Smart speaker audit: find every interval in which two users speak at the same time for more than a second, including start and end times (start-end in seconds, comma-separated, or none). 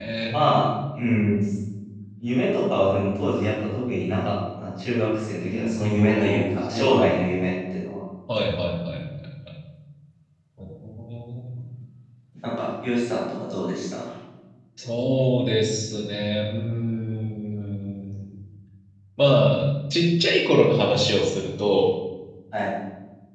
5.5-7.1